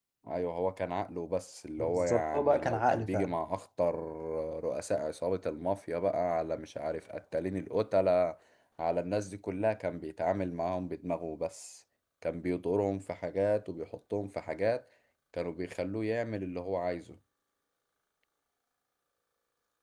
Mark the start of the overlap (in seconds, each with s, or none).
1.8 s